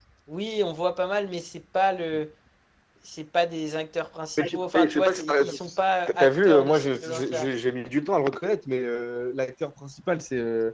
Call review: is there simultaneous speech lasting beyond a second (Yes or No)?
Yes